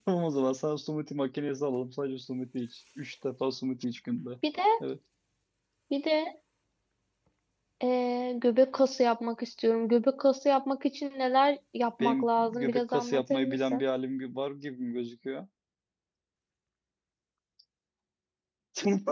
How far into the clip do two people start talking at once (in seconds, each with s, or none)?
12.0 s